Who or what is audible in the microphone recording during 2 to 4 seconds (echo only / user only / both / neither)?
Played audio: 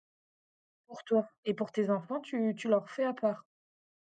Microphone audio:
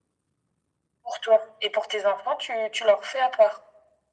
echo only